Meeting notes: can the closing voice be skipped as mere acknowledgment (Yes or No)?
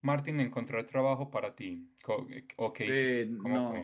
No